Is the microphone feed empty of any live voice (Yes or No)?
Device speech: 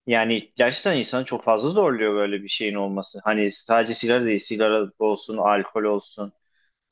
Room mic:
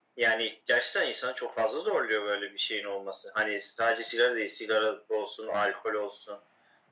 Yes